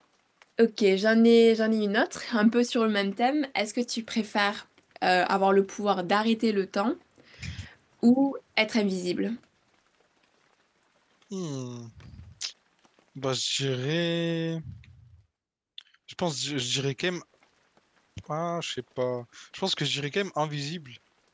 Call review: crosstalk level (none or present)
none